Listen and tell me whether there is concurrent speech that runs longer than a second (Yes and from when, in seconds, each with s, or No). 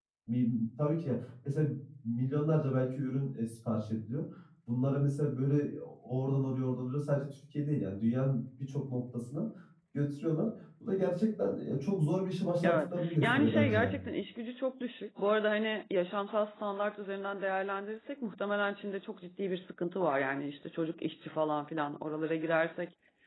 Yes, from 12.6 s